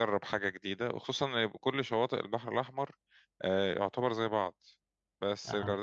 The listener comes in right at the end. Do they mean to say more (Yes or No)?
No